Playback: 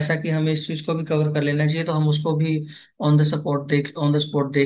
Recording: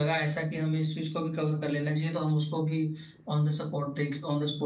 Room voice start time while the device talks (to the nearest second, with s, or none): none